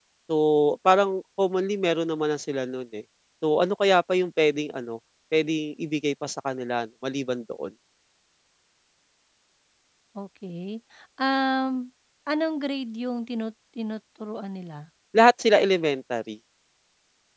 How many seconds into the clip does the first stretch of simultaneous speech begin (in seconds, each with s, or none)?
none